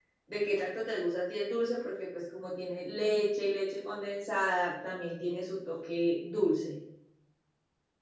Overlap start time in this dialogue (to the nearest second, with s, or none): none